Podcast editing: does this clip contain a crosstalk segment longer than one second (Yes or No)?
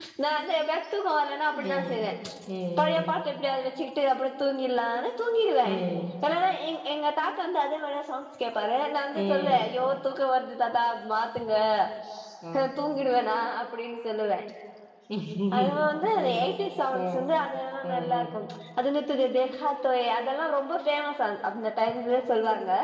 No